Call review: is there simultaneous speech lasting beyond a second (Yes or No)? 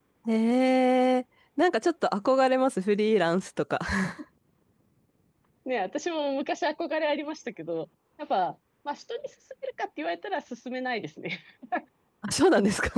No